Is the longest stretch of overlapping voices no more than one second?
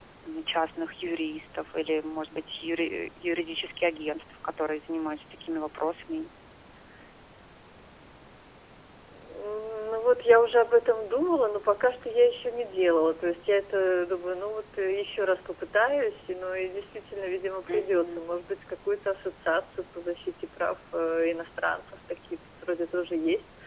Yes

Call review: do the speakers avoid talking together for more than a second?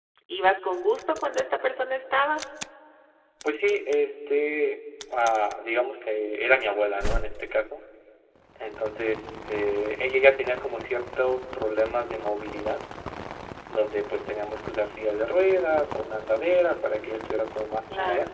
Yes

